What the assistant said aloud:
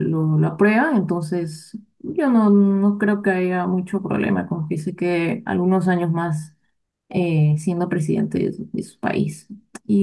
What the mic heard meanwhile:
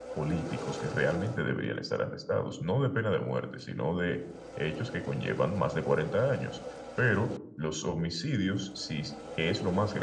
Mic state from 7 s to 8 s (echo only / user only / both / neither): user only